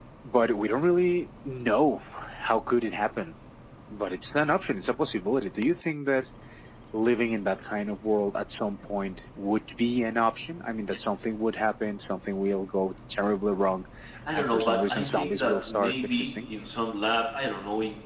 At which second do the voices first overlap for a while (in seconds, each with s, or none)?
14.3 s